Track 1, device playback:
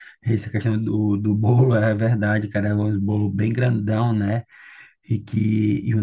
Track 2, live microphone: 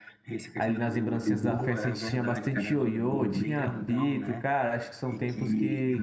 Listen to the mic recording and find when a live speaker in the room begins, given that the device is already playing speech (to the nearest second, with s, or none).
1 s